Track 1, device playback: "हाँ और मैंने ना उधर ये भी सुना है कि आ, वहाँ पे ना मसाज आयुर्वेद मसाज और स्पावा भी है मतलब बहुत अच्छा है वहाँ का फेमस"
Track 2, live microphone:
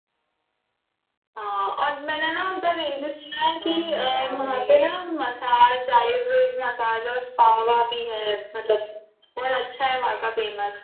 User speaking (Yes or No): Yes